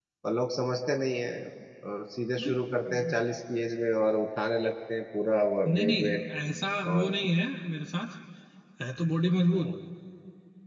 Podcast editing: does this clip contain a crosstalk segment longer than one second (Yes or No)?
No